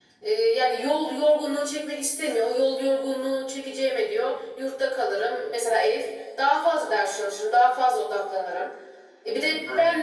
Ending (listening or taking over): listening